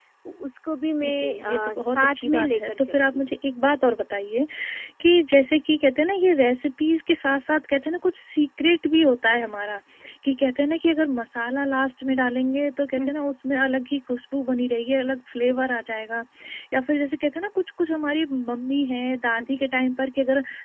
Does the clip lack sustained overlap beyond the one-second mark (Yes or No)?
No